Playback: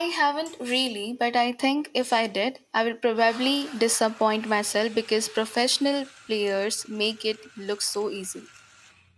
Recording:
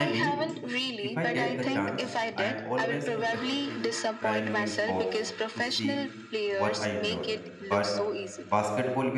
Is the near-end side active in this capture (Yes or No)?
Yes